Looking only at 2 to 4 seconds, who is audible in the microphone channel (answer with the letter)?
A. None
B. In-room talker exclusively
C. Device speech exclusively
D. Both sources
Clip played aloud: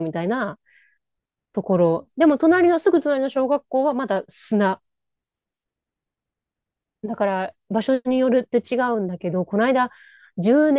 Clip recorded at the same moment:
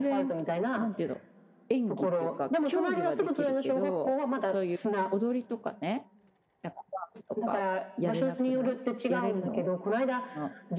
D